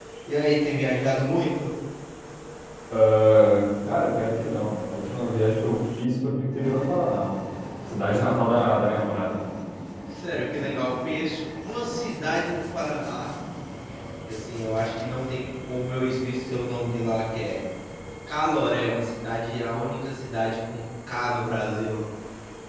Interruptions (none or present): none